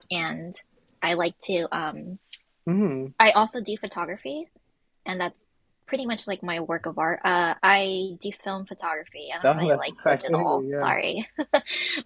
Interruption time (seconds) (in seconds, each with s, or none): 9.4 s